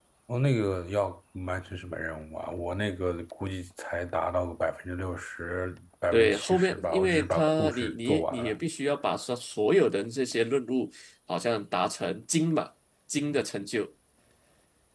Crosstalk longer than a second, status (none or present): present